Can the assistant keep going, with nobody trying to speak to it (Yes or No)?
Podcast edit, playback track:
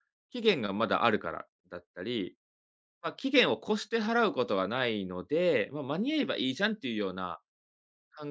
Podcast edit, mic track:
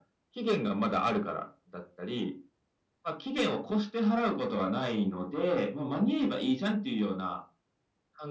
Yes